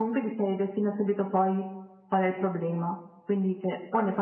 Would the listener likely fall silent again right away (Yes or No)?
Yes